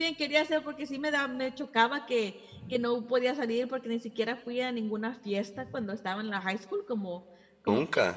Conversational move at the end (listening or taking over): listening